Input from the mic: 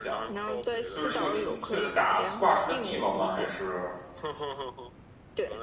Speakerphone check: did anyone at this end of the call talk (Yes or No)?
Yes